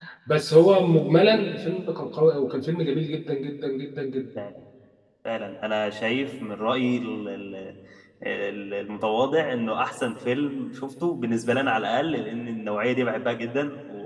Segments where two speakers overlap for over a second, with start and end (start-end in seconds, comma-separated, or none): none